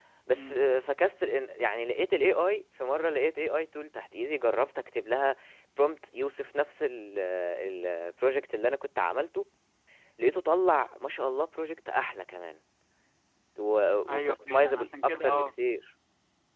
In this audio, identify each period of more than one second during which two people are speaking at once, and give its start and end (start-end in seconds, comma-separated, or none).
14.1-15.5